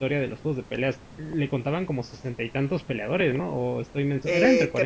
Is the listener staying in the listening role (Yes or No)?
No